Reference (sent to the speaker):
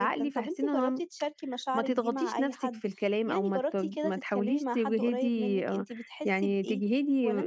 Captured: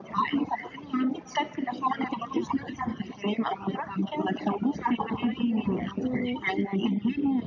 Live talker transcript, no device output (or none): إمم.